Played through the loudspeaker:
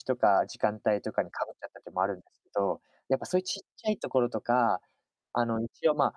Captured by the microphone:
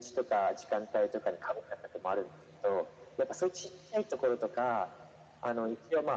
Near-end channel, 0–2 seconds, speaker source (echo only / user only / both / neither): echo only